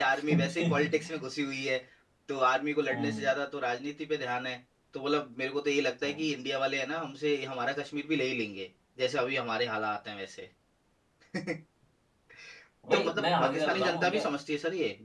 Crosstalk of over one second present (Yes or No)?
Yes